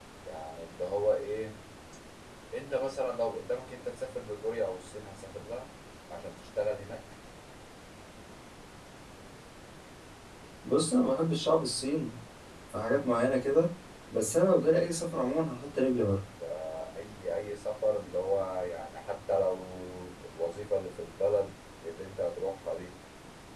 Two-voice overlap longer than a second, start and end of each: none

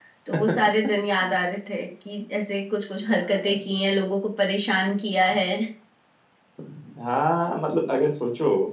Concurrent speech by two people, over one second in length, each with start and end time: none

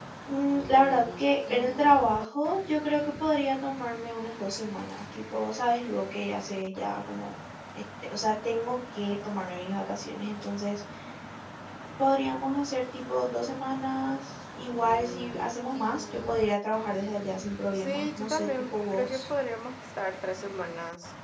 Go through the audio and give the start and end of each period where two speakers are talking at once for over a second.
17.7-19.2

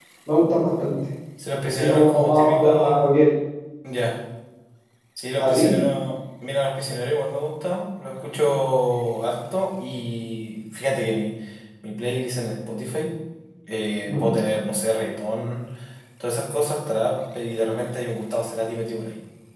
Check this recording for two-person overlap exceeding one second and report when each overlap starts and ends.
1.8-3.2

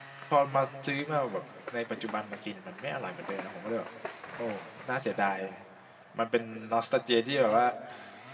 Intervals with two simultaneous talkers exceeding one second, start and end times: none

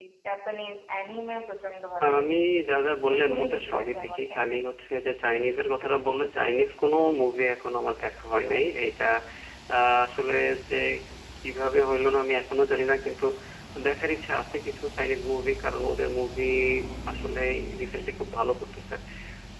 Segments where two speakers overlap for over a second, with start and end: 3.1-4.3

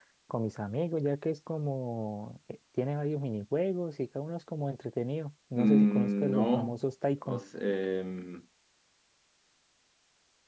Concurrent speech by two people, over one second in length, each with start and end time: 5.6-6.8

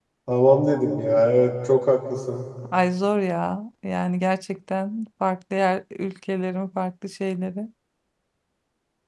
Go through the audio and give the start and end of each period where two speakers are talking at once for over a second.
none

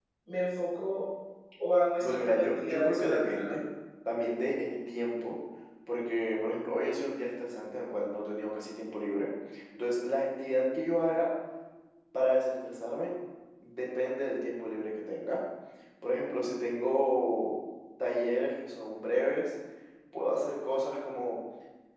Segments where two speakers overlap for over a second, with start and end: 2.0-3.6

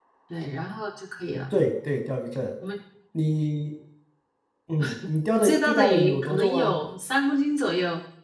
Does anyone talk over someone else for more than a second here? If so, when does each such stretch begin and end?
5.4-6.8

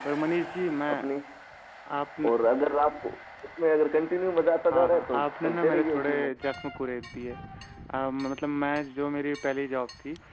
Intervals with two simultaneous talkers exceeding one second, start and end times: 4.7-6.3

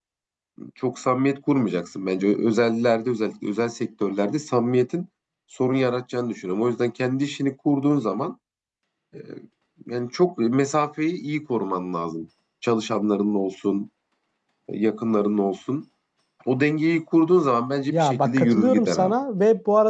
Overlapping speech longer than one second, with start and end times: 17.9-19.1

